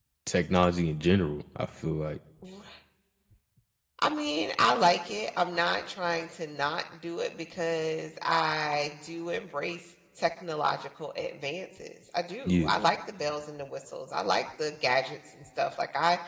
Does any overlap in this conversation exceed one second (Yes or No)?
No